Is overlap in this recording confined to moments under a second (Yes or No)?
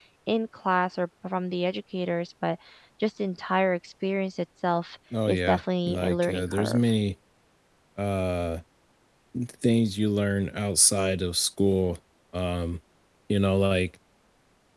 No